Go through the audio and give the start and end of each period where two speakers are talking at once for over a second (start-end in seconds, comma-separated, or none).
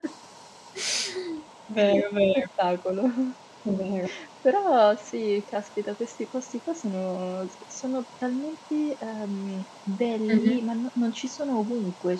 none